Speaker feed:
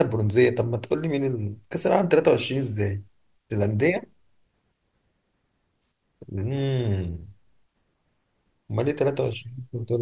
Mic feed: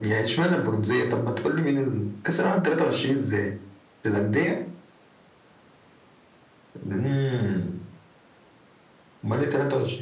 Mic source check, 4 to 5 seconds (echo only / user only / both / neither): echo only